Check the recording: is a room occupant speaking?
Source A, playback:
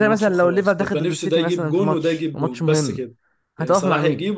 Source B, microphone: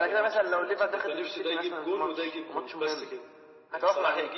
No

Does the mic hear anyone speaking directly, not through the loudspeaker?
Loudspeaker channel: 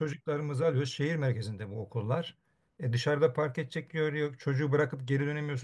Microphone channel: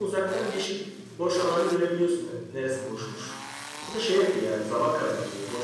Yes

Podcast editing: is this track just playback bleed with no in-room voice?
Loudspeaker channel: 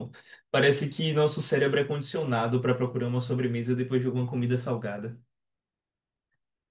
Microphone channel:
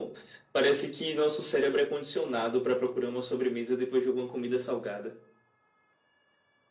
Yes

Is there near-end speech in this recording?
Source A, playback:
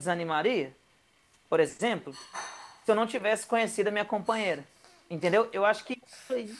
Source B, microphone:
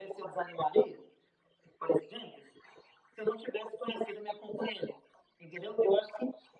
No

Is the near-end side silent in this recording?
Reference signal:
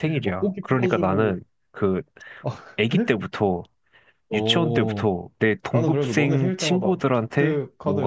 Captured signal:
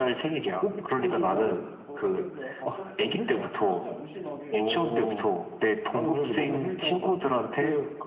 No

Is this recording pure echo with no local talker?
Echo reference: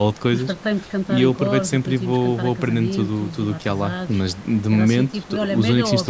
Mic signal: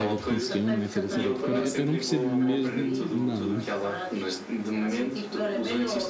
No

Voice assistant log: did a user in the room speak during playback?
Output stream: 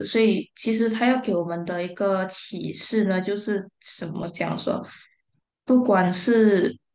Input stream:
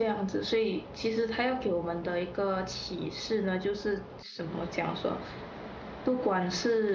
No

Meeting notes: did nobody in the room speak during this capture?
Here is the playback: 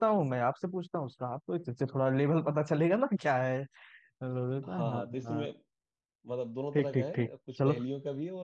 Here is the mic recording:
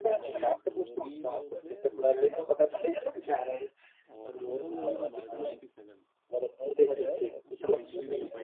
No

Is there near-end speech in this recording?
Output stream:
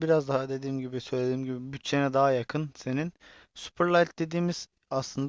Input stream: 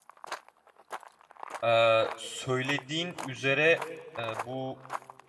Yes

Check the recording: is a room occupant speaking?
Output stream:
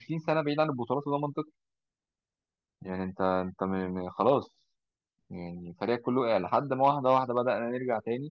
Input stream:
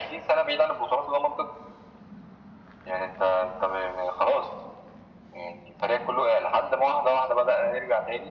No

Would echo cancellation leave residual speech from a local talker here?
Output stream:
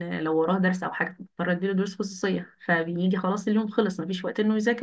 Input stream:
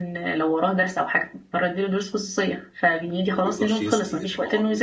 Yes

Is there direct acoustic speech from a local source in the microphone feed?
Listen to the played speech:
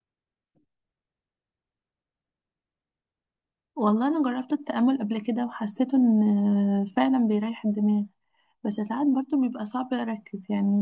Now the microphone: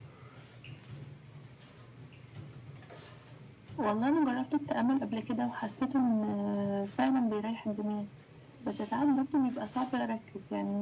No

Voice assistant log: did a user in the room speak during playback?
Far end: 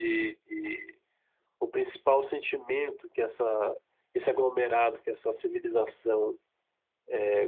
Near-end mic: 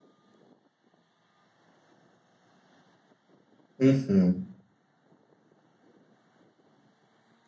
Yes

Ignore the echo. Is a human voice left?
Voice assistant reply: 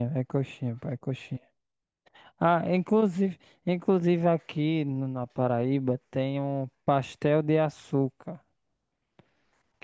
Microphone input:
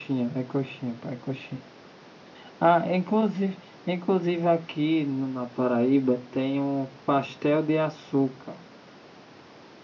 No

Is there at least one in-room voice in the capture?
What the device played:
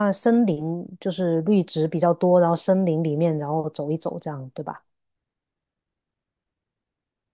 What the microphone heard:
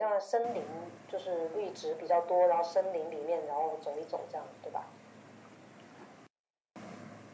No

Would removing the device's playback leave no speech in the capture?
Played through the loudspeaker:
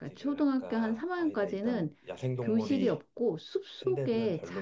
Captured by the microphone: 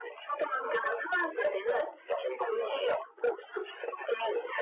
Yes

